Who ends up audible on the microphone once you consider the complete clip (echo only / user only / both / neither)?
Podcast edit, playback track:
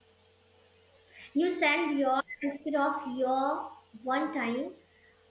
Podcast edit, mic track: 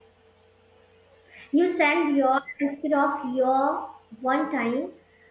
echo only